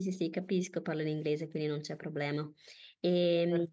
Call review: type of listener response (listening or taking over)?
listening